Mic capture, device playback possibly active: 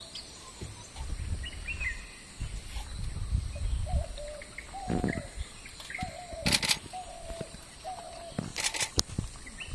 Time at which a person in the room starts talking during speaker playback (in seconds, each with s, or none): none